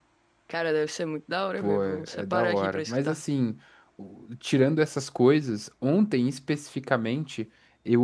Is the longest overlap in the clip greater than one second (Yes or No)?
Yes